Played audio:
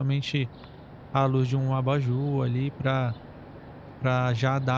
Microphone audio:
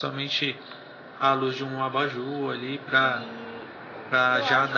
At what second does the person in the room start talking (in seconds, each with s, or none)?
3.0 s